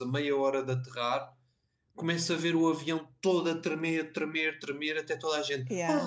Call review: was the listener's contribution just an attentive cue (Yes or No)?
Yes